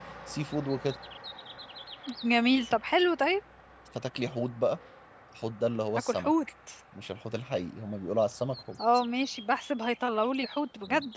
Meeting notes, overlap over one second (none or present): none